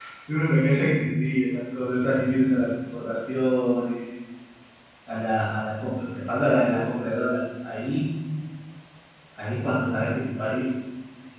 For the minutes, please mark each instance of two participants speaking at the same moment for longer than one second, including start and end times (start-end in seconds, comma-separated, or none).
none